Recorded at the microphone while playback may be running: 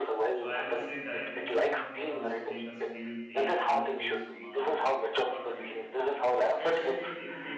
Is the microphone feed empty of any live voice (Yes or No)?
No